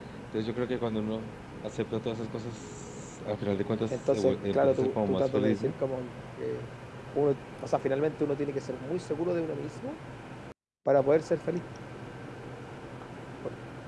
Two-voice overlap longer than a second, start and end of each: 3.9-5.7

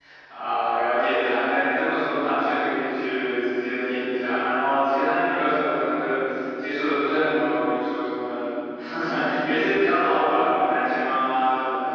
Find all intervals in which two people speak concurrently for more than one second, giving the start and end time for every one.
none

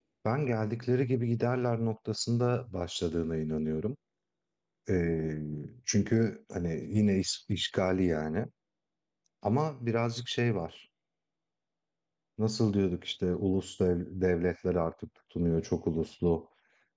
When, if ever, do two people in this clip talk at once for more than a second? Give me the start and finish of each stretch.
none

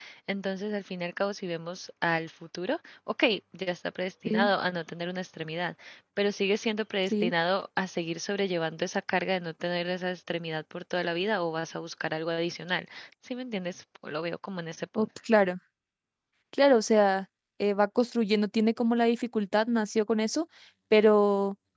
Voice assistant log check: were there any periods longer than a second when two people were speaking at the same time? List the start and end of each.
none

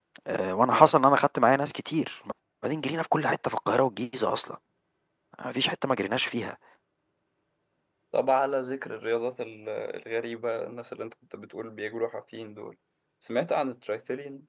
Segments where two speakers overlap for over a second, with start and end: none

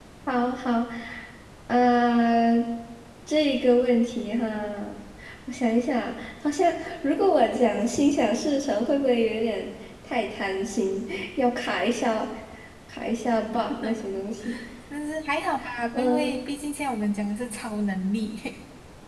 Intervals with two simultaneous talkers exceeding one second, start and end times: none

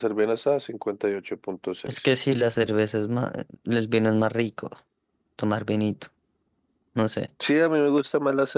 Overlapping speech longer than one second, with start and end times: none

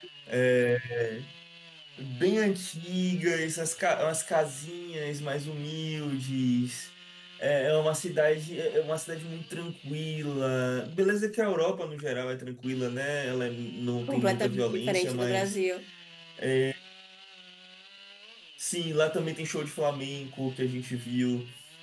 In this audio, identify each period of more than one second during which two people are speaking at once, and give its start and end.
14.1-15.6

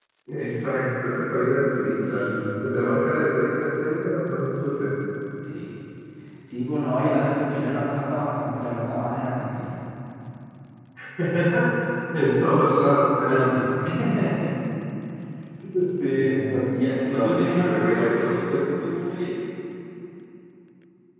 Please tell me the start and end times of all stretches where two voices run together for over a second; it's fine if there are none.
16.1-18.3

